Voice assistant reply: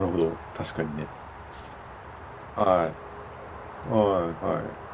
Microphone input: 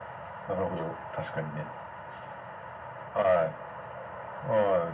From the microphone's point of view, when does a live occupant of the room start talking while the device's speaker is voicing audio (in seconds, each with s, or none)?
none